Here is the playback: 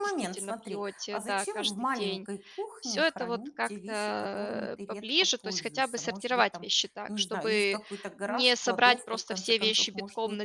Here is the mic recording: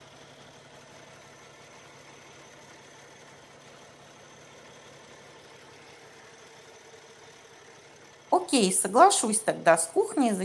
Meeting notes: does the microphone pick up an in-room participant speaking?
Yes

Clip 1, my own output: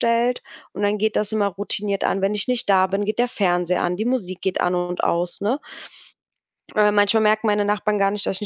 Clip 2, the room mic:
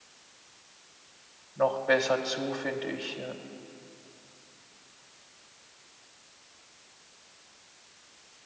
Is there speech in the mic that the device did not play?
Yes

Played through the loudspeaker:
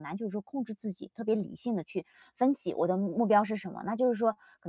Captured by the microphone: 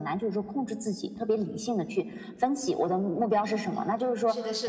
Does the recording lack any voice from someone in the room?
No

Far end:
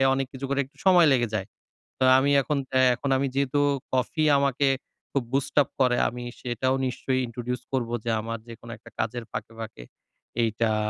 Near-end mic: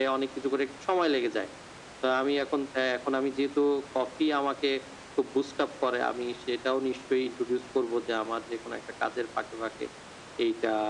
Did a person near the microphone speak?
No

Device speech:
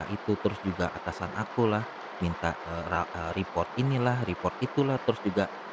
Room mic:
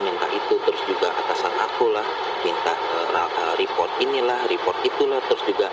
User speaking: No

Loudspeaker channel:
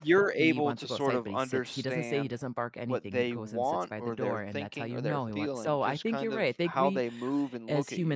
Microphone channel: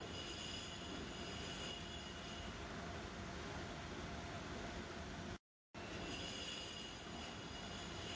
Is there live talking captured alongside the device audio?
No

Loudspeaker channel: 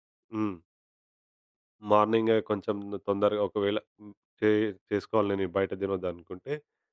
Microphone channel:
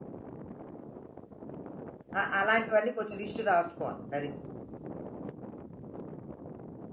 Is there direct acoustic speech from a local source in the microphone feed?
Yes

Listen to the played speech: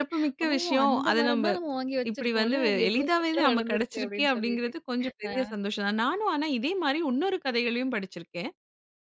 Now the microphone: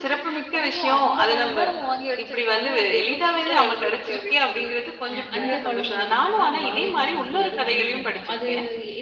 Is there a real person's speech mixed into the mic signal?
Yes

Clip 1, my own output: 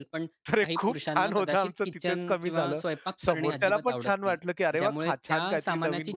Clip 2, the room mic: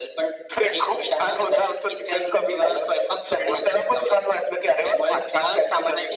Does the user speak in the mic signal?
No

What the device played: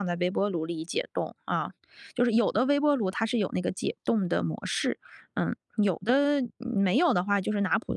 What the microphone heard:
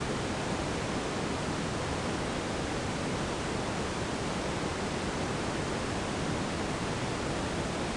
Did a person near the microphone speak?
No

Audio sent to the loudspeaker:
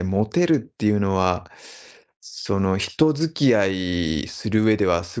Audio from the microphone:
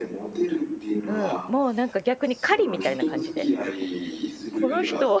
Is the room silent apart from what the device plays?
No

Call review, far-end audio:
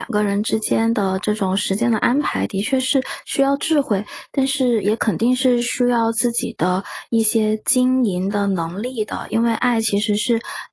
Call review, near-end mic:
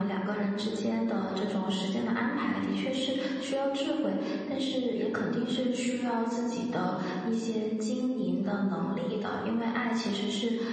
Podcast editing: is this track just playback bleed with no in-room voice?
Yes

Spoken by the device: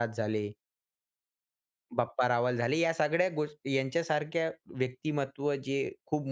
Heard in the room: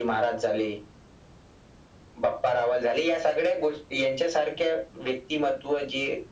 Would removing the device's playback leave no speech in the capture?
Yes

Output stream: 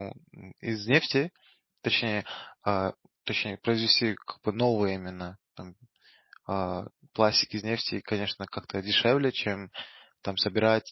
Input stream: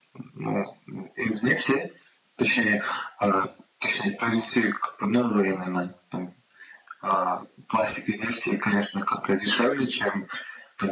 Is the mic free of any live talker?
Yes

